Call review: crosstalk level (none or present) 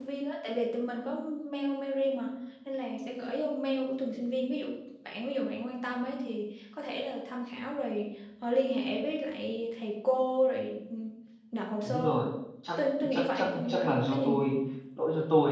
present